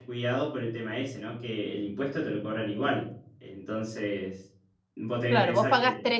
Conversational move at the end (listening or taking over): taking over